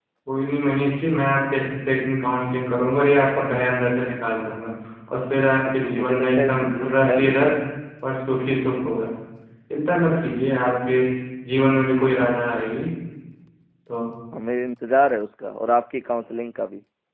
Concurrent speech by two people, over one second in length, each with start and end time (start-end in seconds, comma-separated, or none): 5.6-7.5